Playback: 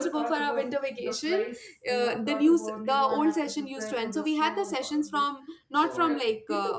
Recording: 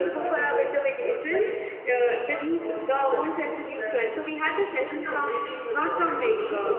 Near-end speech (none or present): present